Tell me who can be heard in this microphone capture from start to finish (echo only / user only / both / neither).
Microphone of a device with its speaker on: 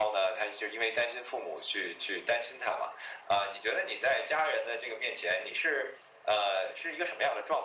echo only